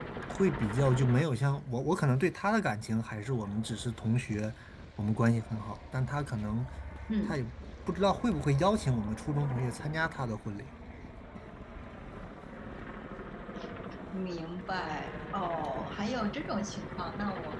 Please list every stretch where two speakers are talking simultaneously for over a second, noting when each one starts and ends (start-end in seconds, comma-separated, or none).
none